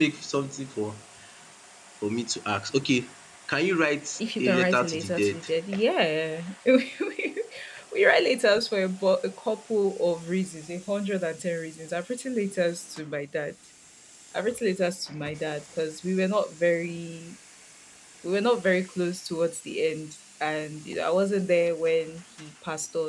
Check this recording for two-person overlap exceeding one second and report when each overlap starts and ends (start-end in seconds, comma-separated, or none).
4.2-5.4